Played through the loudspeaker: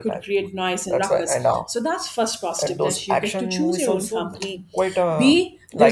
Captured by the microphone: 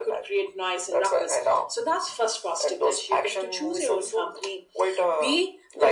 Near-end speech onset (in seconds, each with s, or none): none